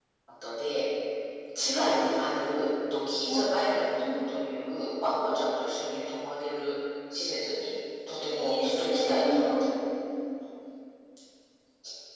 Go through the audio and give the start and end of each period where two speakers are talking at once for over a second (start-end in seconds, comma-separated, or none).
8.2-9.7